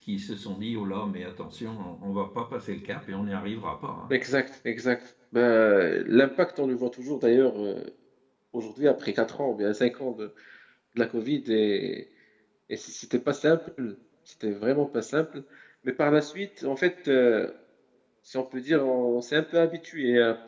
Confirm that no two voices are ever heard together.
Yes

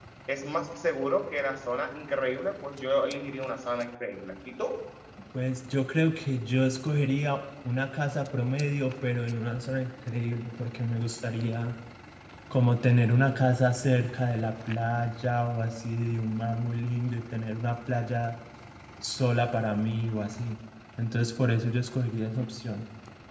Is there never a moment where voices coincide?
Yes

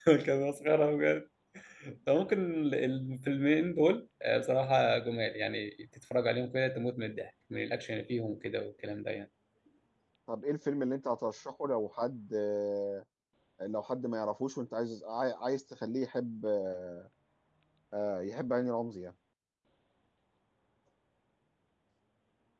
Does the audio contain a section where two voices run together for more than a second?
No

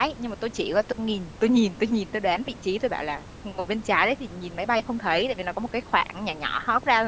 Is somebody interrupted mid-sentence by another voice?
No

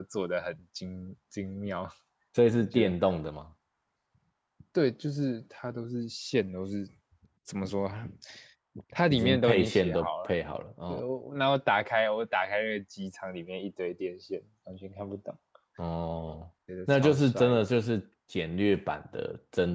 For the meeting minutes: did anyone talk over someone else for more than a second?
Yes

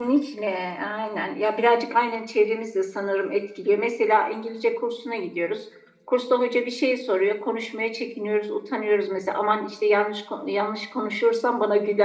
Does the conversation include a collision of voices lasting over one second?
No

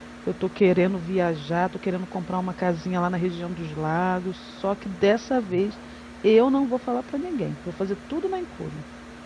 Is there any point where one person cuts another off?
No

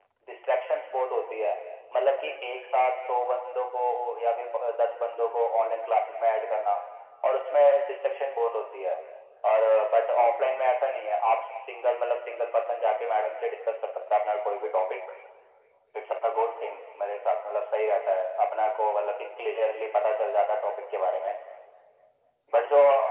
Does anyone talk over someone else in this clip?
No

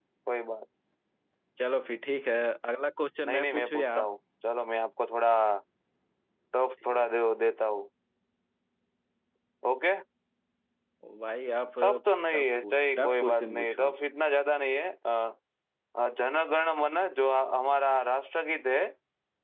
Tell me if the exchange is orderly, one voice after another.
No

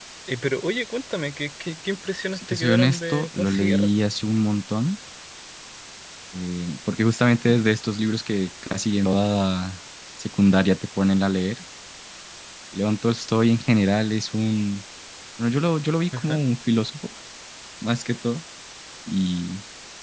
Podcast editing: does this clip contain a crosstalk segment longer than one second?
Yes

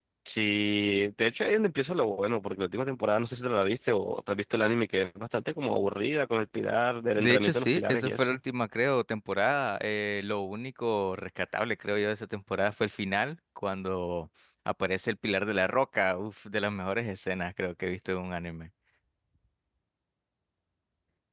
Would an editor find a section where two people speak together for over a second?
Yes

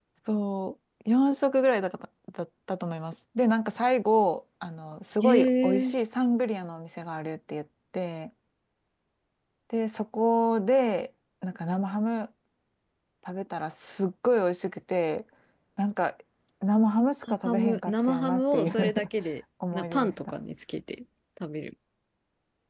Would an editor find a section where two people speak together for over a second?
Yes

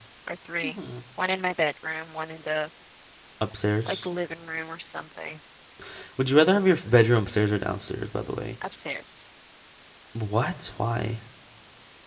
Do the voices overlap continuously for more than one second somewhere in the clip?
No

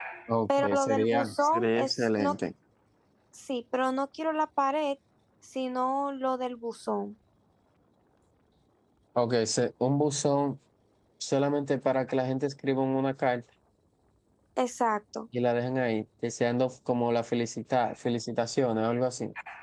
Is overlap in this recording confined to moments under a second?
No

